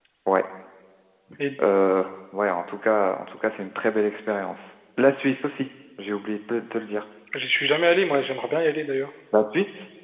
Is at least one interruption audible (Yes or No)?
No